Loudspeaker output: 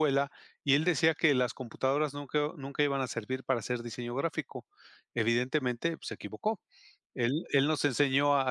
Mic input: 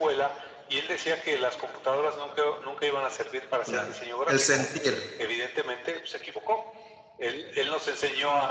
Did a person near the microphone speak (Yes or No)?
Yes